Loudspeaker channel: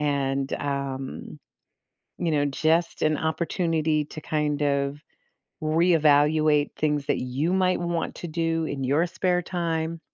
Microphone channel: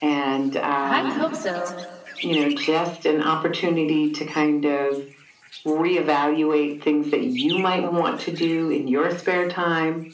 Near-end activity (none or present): present